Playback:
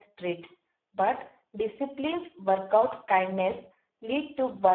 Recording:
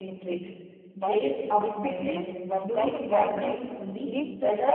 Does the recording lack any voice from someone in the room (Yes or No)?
No